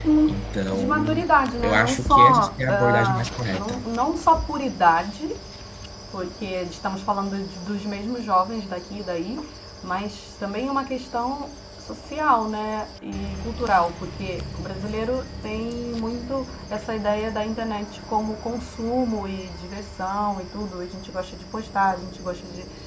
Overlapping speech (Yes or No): Yes